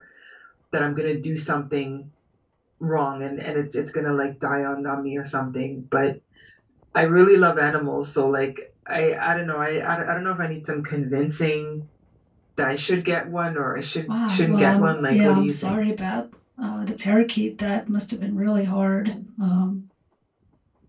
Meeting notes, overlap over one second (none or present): present